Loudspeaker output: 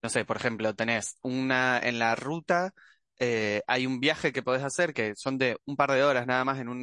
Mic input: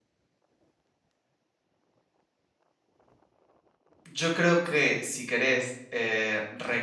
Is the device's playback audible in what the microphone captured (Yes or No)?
No